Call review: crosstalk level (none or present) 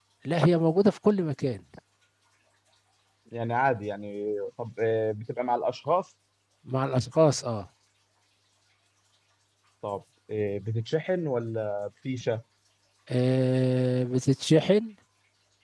none